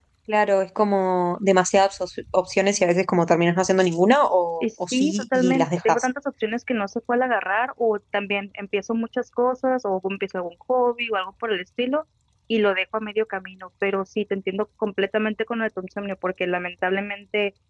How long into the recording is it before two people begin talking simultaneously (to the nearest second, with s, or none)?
5 s